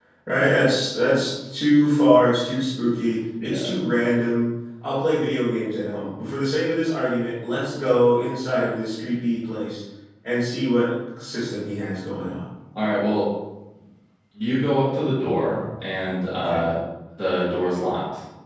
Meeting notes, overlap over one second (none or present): none